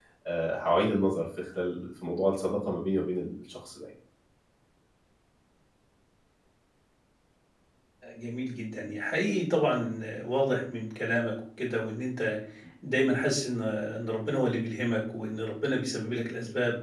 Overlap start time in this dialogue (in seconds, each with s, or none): none